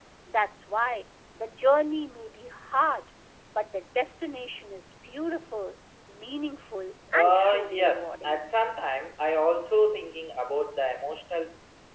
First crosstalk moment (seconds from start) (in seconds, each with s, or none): 7.1 s